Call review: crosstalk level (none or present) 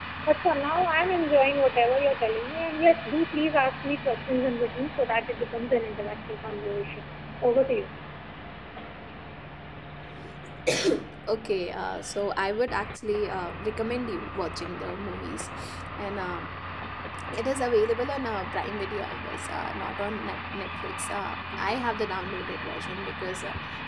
none